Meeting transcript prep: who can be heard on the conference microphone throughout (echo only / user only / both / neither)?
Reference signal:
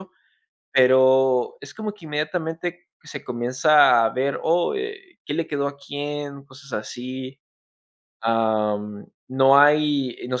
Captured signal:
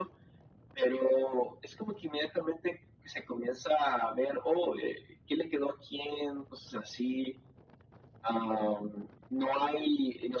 echo only